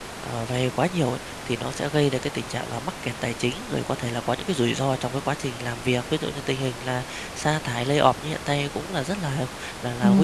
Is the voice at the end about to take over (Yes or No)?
Yes